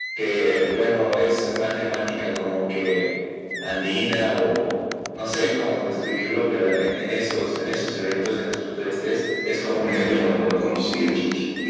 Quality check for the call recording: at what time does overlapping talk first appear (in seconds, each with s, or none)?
9.7 s